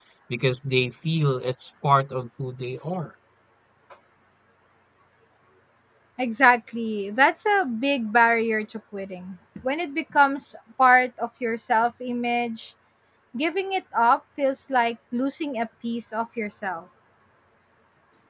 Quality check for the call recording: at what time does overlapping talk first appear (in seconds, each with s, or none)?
none